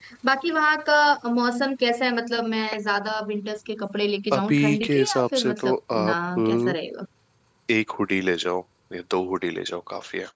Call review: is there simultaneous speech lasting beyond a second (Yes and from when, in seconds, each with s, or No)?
Yes, from 4.3 s